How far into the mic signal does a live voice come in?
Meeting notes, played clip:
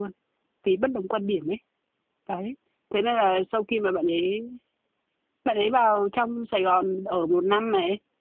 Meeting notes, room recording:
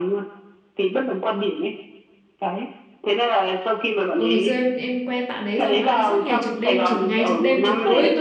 4.1 s

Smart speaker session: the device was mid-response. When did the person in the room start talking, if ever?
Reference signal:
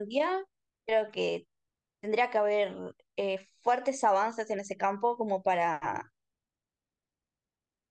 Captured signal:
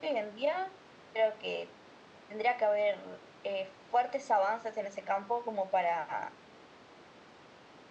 none

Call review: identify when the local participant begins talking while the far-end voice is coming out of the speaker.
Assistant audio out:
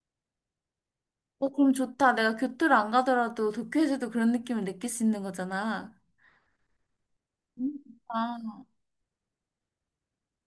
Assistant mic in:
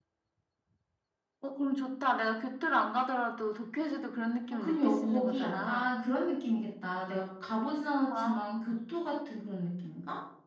4.5 s

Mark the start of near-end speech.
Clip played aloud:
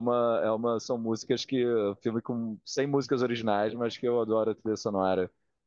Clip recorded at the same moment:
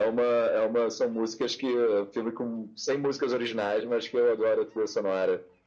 none

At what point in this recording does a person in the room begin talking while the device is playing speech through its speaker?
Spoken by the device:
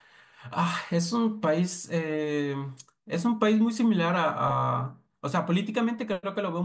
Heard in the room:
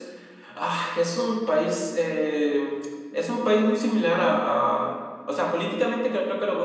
none

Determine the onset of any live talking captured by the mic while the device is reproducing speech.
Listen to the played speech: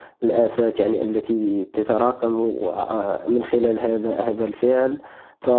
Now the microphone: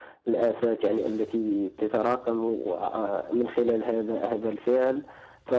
none

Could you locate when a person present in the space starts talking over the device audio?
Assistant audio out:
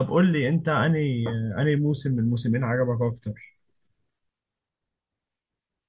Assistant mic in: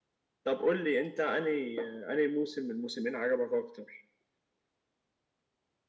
none

